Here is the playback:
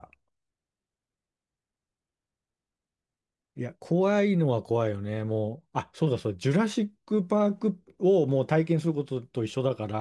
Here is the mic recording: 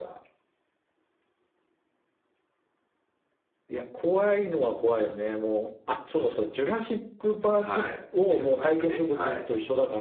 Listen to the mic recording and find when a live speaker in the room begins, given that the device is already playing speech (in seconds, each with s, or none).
7.5 s